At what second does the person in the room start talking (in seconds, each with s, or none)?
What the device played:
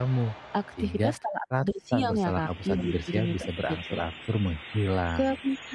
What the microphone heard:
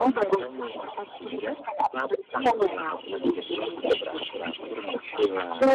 none